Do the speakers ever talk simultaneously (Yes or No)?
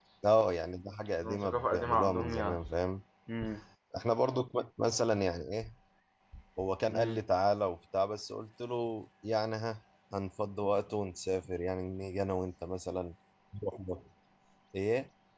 Yes